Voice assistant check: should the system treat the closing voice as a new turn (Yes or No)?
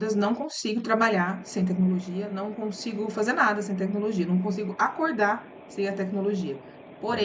No